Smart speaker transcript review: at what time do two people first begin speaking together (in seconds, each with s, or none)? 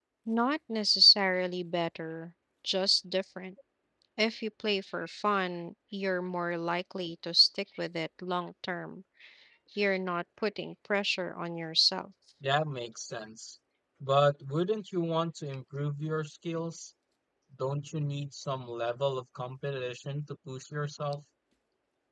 none